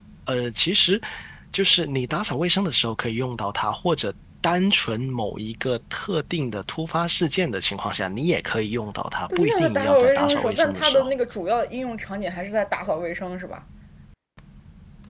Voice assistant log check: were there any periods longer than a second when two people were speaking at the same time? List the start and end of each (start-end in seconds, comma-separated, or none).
9.4-11.1